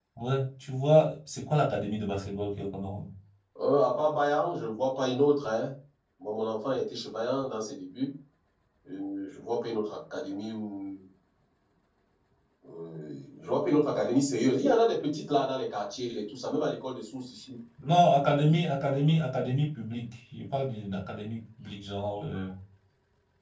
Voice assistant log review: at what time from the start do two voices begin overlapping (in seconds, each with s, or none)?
none